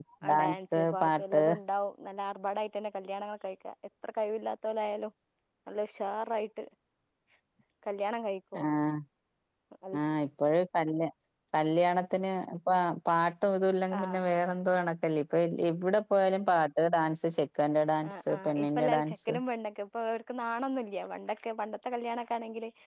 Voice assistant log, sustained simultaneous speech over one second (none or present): present